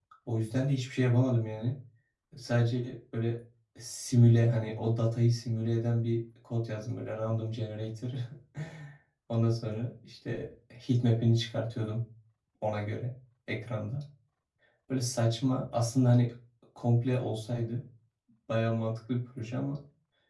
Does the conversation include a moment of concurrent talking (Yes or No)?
No